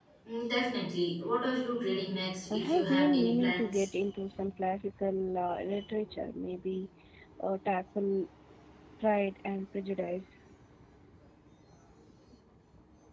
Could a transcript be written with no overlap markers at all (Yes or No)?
No